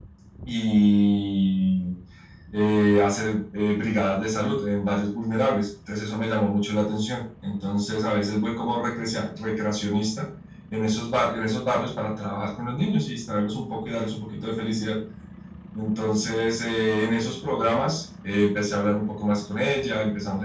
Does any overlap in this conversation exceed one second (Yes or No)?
No